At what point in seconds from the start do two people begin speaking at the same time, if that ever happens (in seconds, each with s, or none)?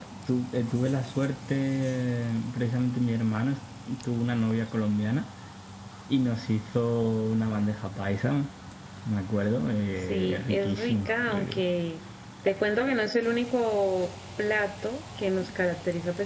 10.1 s